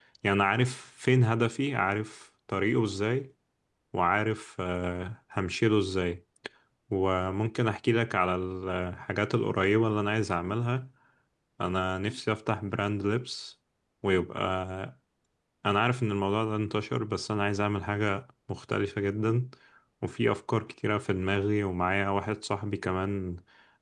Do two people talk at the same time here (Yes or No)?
No